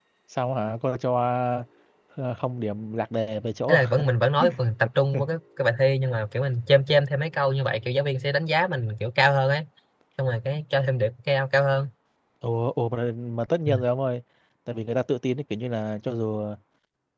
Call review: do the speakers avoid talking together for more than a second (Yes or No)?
Yes